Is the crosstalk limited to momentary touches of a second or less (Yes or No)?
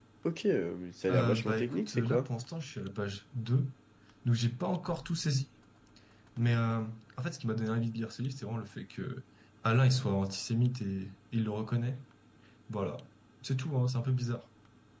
No